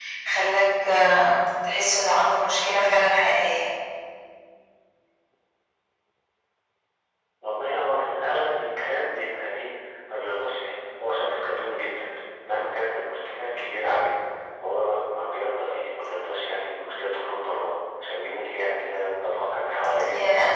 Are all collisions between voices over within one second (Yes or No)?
Yes